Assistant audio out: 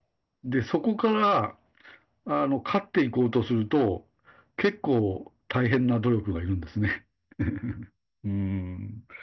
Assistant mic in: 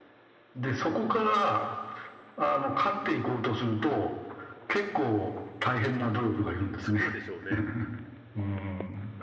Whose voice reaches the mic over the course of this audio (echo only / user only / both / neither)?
both